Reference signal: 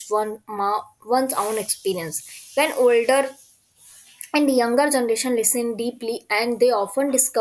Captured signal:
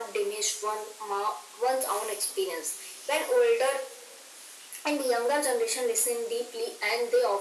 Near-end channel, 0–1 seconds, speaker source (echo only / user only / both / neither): echo only